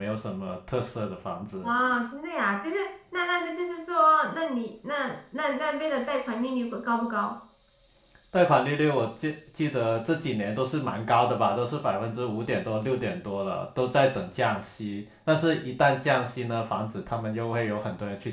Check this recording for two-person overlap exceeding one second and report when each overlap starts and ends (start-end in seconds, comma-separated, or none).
none